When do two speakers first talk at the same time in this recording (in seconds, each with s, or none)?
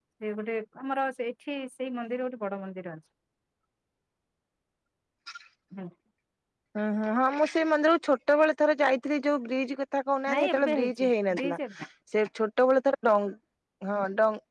10.3 s